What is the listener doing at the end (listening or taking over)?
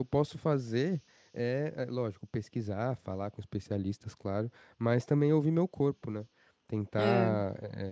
listening